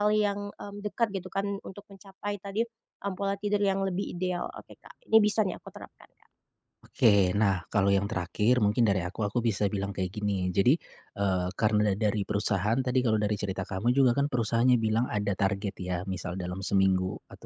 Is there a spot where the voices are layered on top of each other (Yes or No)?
No